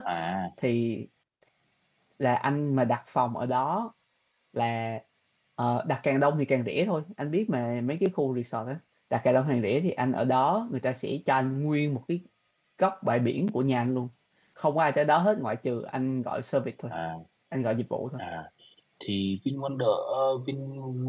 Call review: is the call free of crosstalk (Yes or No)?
Yes